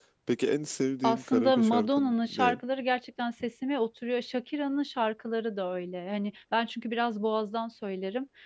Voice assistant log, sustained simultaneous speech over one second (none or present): present